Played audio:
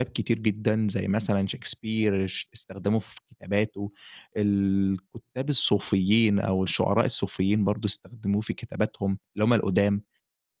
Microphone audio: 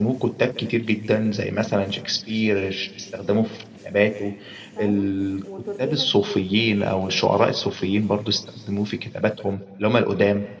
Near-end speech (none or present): present